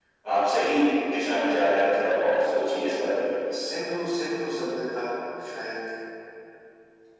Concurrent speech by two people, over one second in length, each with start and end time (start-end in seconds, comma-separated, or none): none